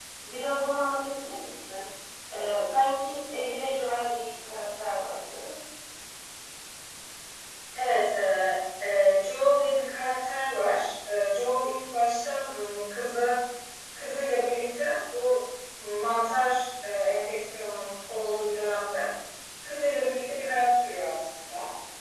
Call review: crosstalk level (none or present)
none